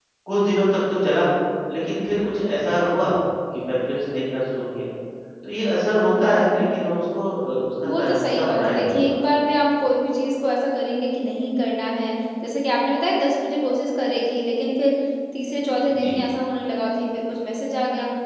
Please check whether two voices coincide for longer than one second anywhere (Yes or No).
Yes